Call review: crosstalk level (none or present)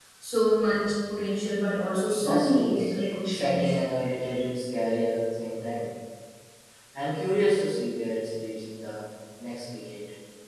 present